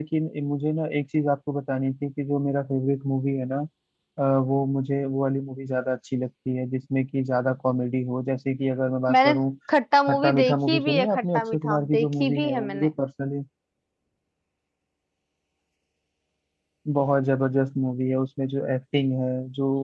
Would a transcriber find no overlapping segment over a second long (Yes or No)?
No